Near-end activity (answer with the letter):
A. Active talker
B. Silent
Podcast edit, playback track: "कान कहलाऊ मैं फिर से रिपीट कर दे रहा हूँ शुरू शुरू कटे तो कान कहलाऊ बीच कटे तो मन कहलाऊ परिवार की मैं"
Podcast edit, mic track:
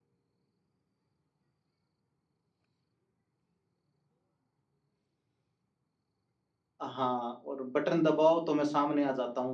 A